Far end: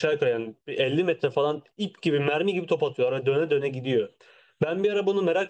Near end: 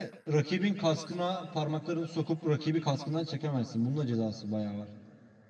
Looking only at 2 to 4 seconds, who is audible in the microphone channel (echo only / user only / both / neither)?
user only